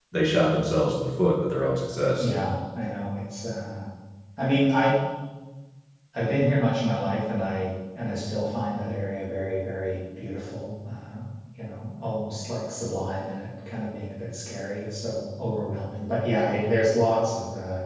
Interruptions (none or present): none